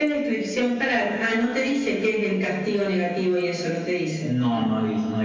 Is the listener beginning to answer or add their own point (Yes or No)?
Yes